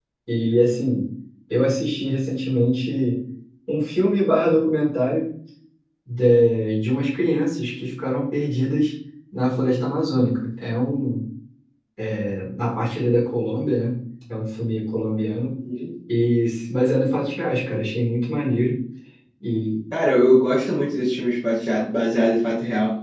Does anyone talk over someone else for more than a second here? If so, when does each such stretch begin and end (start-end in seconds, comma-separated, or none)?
none